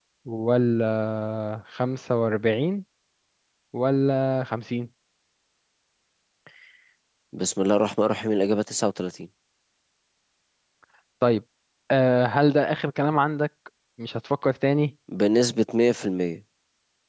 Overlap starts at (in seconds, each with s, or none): none